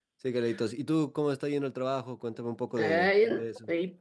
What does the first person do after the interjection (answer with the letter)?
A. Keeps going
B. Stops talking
B